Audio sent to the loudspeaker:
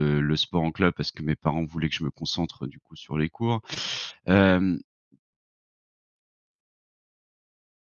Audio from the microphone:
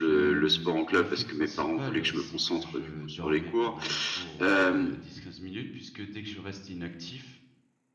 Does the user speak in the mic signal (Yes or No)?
Yes